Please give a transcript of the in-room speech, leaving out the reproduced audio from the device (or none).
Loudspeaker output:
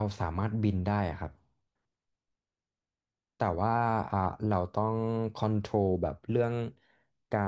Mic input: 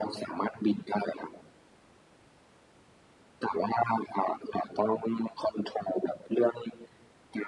none